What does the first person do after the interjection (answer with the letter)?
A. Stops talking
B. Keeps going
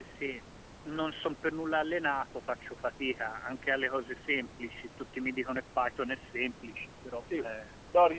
A